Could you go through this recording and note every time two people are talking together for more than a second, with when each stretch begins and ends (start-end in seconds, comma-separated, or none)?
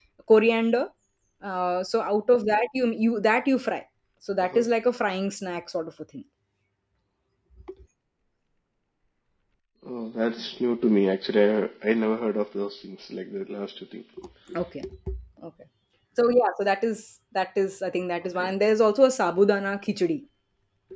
none